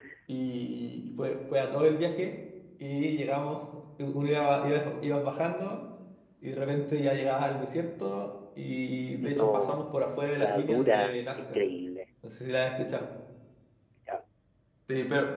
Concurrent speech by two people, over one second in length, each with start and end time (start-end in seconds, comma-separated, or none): 10.4-11.6